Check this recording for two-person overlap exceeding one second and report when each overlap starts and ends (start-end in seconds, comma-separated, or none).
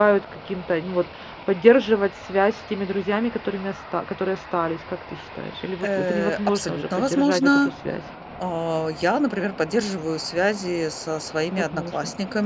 5.8-7.6